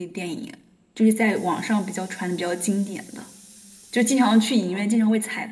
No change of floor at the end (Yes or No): Yes